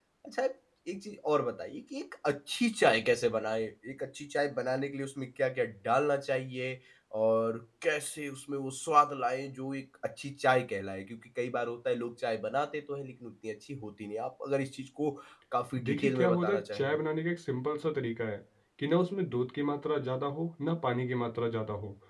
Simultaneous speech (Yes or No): Yes